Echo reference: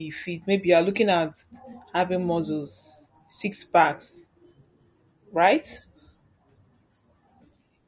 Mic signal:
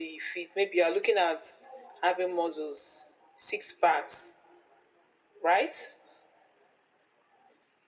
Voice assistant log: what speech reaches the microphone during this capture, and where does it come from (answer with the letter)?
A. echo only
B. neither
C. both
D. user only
A